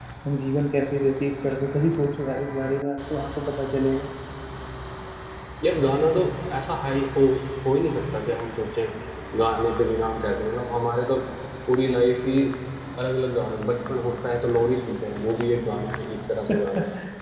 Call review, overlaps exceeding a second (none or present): none